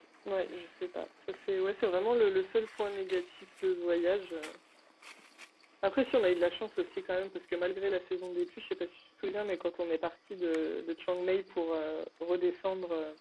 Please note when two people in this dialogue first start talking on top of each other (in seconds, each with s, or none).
none